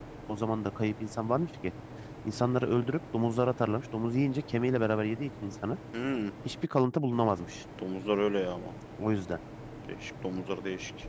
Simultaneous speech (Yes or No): No